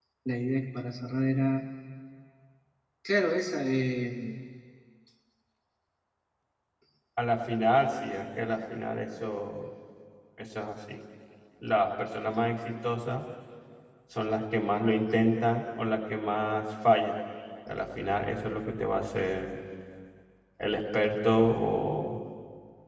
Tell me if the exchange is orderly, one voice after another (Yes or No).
Yes